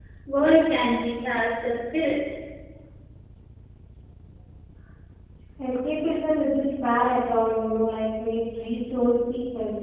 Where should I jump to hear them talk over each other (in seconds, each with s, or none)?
none